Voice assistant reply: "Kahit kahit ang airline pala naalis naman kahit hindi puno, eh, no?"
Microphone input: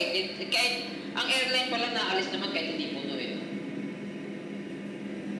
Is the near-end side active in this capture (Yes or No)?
No